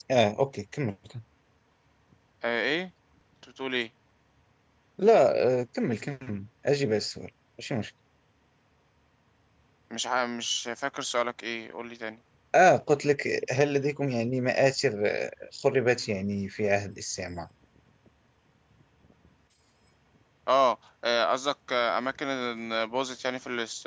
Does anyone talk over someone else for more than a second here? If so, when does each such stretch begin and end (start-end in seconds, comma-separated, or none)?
none